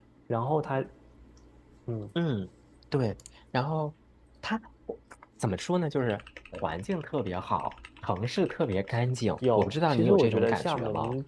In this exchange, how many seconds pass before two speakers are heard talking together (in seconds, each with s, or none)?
9.4 s